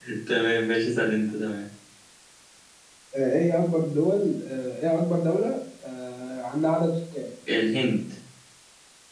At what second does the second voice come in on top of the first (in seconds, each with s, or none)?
none